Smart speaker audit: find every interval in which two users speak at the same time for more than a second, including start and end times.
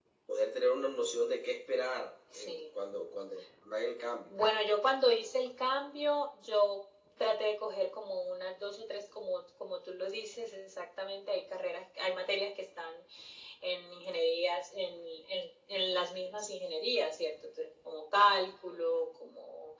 none

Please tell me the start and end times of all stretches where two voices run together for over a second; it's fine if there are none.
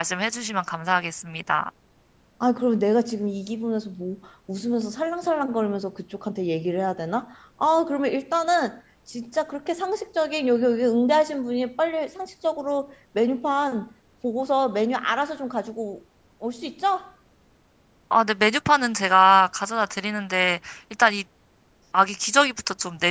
none

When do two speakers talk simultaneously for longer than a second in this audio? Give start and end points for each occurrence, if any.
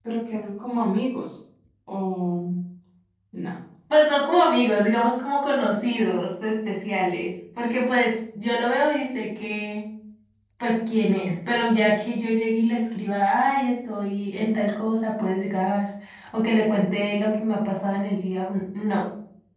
none

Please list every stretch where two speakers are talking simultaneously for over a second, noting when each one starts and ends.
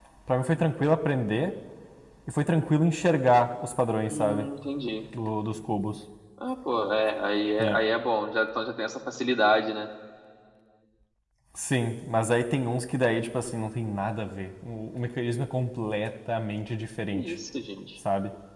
none

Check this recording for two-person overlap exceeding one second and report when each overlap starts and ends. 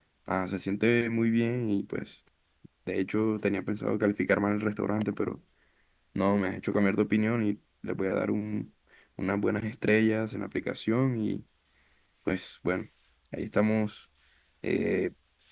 none

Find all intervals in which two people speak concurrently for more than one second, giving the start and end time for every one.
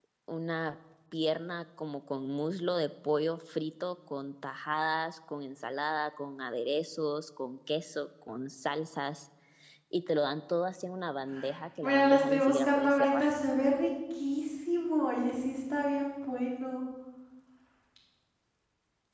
11.8-13.2

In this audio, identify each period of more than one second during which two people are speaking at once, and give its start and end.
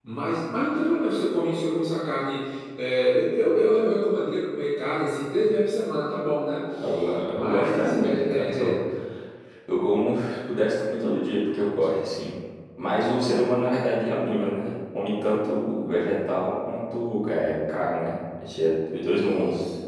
7.4-8.7

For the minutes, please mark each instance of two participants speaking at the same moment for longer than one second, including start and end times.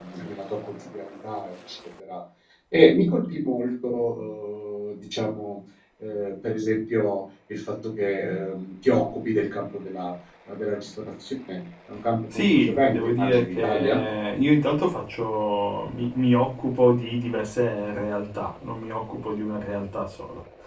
12.3-14.0

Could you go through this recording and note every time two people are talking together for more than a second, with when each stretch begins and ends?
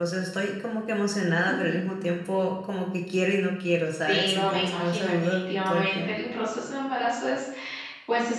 4.1-6.4

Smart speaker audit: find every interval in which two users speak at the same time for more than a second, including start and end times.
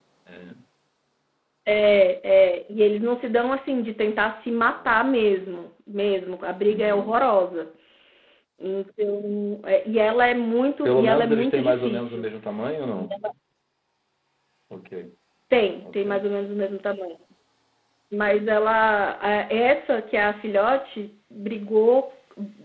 10.8-12.2

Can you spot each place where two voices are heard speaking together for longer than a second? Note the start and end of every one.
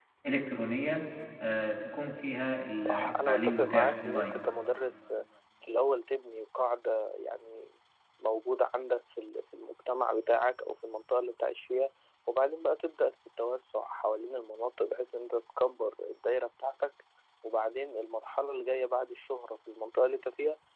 2.8-4.4

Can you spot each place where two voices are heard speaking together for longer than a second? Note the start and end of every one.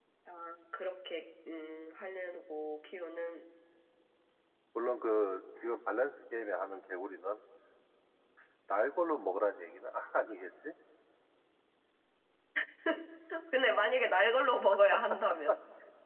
none

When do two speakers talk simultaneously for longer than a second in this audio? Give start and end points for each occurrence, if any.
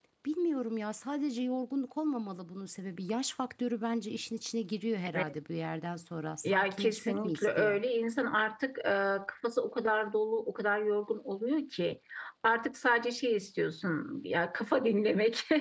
6.5-7.8

